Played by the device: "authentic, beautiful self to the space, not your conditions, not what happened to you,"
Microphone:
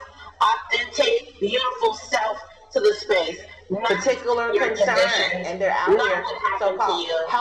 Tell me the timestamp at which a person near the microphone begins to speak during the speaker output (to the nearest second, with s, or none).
4 s